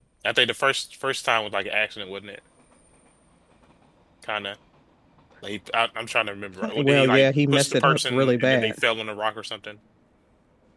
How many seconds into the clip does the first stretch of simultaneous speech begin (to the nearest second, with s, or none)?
7 s